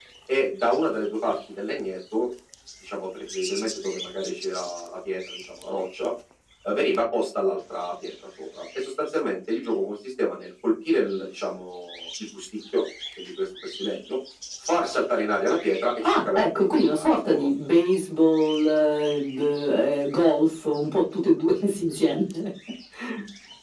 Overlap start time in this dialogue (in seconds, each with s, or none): 16.0 s